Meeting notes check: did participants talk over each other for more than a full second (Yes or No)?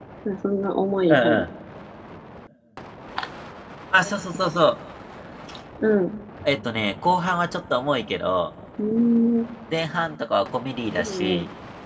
No